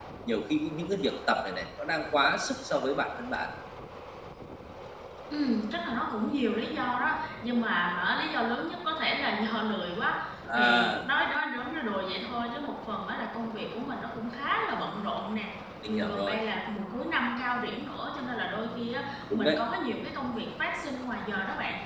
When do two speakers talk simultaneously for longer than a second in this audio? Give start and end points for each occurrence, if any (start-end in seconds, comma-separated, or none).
none